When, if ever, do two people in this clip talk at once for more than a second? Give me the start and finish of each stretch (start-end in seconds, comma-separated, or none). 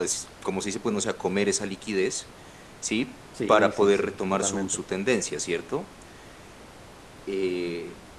3.5-4.8